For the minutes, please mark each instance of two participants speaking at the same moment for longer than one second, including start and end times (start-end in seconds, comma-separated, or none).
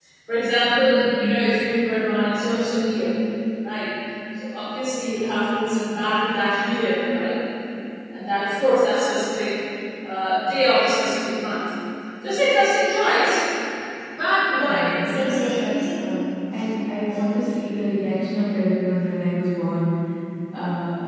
14.5-15.8